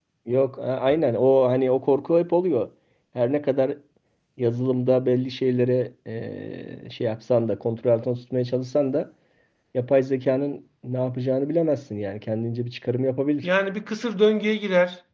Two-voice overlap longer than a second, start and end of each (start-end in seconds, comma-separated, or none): none